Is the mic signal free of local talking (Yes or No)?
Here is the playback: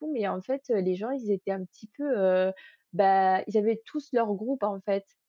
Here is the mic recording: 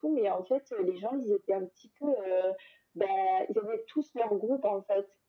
Yes